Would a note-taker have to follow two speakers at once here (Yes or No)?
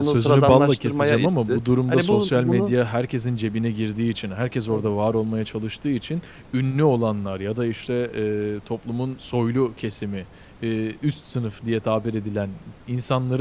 Yes